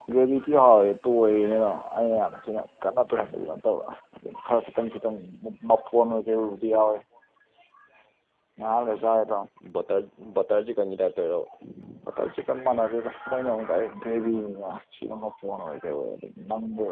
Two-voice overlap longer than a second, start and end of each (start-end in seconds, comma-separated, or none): none